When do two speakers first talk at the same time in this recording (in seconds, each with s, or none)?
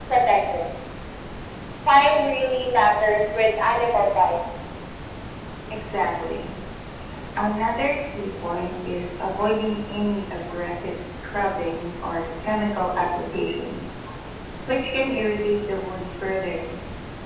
none